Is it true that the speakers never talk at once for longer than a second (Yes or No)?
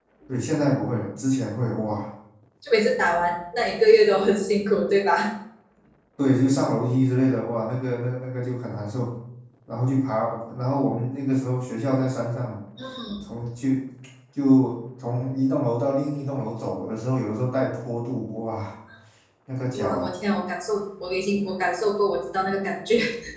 Yes